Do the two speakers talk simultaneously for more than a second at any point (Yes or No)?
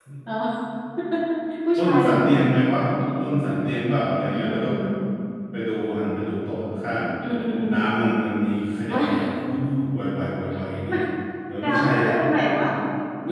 No